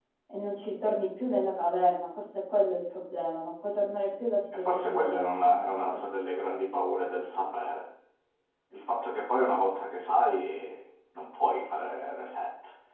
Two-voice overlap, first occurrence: 4.5 s

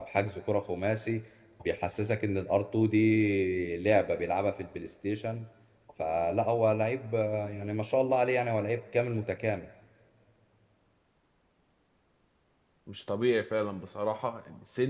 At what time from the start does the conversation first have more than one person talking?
none

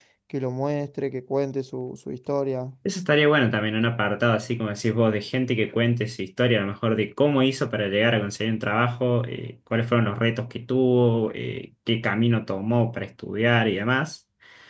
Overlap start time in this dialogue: none

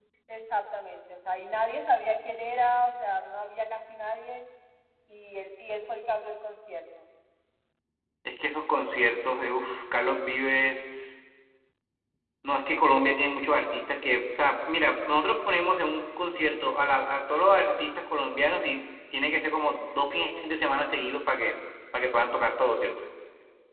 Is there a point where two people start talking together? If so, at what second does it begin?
none

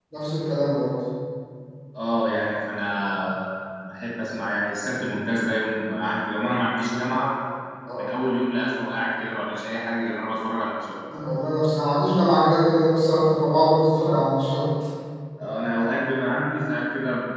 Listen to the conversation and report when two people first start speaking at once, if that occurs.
none

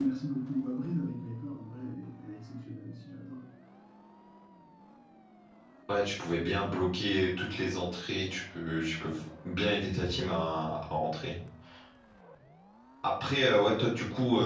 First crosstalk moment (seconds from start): none

